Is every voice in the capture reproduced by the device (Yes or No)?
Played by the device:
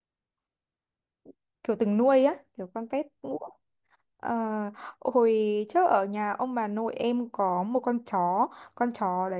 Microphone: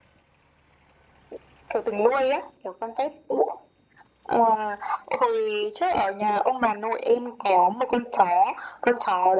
Yes